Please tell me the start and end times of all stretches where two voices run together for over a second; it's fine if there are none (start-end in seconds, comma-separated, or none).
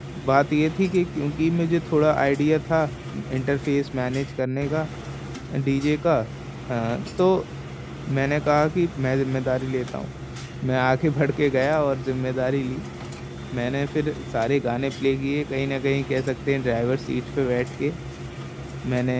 none